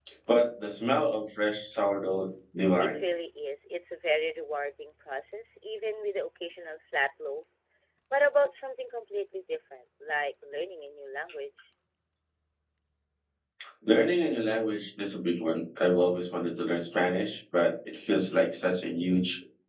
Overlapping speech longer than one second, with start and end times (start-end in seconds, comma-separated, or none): none